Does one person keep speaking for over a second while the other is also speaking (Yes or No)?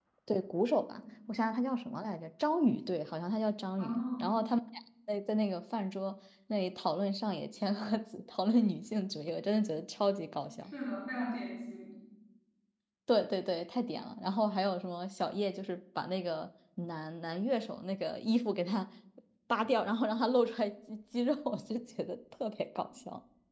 No